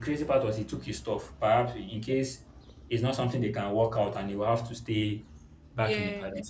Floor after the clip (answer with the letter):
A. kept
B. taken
A